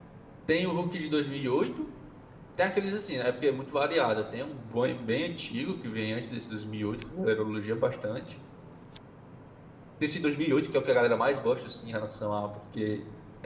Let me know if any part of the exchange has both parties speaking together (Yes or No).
No